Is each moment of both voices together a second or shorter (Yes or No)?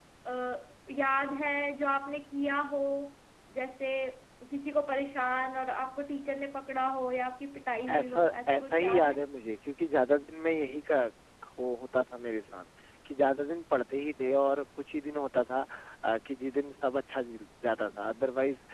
No